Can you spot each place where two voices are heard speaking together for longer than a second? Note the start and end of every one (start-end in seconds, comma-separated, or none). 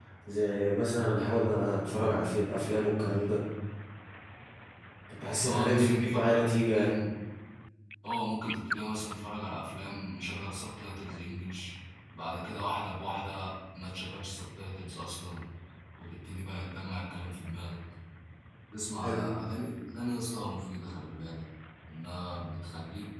5.4-7.0